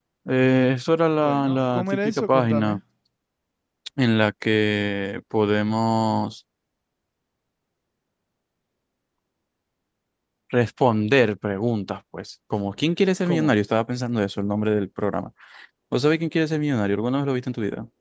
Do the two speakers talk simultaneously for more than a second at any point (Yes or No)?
Yes